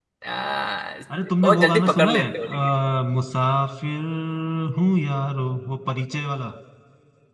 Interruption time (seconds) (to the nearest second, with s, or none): 1 s